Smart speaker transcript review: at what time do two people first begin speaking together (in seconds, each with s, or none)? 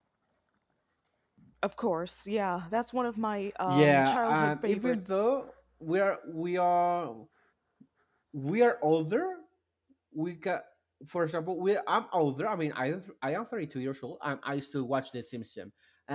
3.7 s